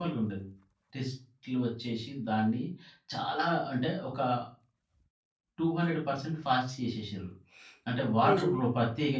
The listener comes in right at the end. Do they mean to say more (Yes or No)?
No